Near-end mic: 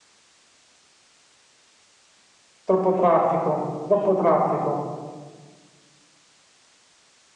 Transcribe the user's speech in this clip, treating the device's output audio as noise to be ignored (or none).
troppo traffico, troppo traffico.